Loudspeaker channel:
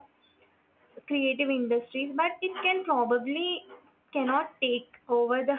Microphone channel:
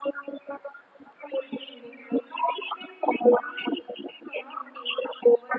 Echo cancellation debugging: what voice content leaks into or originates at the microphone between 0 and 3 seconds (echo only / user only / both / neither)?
echo only